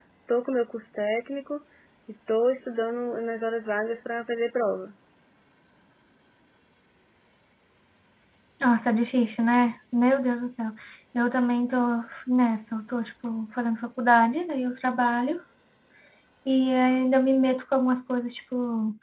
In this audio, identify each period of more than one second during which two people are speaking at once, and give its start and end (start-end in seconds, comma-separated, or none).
none